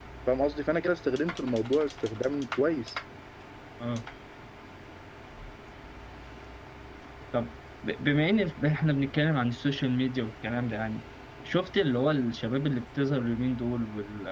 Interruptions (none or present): none